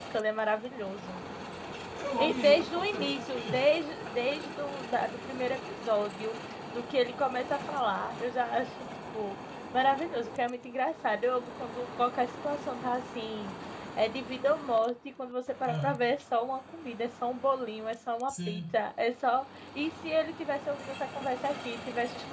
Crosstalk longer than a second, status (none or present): present